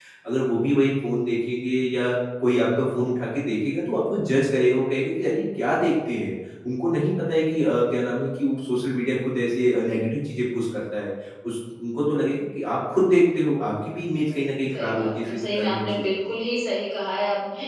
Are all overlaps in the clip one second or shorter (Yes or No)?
No